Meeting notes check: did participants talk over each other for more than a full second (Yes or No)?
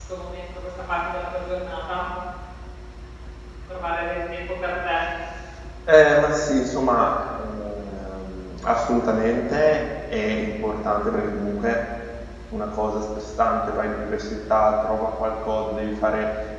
No